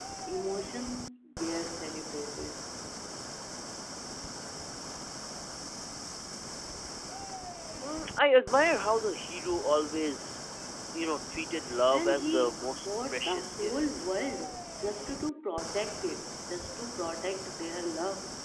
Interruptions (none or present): present